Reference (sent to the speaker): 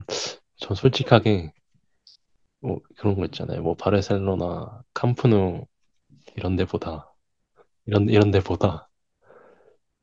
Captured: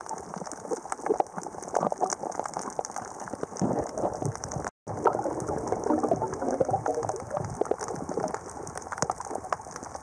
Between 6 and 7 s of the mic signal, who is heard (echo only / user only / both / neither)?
neither